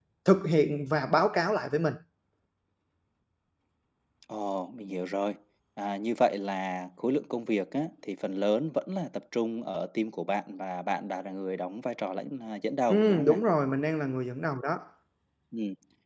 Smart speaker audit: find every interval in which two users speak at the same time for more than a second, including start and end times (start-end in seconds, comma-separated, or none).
none